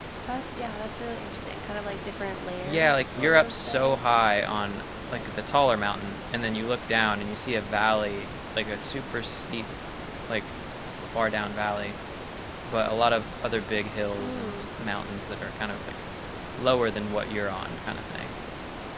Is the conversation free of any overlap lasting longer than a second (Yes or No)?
No